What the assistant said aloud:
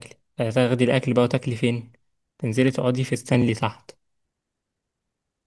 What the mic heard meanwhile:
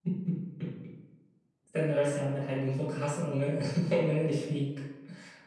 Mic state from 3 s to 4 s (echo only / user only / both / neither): user only